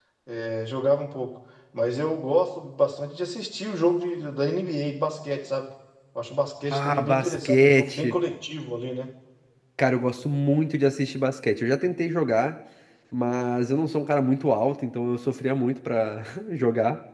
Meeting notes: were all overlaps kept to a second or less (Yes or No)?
No